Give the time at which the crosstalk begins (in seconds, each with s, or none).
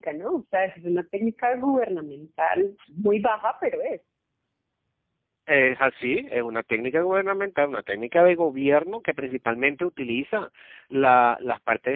none